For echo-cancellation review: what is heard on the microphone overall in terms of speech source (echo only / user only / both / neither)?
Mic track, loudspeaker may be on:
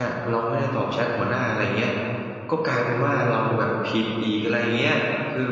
user only